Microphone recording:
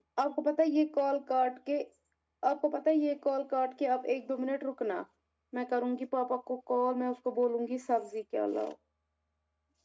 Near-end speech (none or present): none